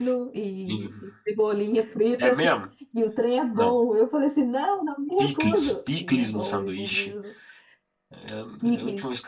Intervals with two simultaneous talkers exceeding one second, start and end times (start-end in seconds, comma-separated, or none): 5.2-7.1